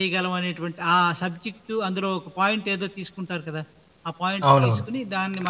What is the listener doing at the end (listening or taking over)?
listening